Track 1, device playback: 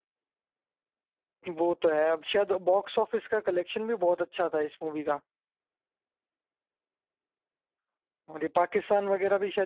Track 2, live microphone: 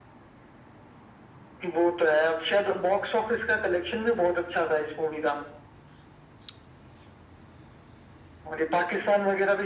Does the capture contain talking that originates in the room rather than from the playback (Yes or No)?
No